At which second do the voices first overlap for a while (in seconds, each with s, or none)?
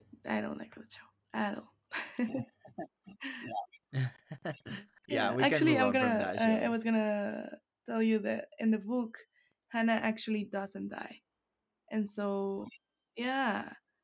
5.1 s